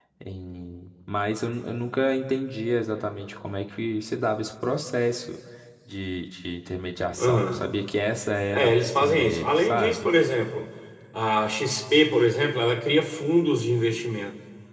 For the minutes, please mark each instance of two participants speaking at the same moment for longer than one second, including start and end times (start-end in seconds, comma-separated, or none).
8.5-10.1